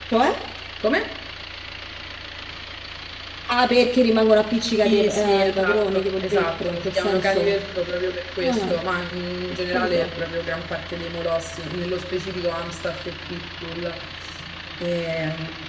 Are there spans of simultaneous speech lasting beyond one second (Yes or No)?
Yes